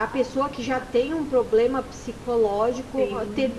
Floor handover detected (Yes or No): Yes